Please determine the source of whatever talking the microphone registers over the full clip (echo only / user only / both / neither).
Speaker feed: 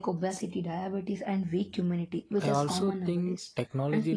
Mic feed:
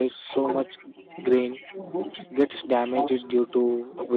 both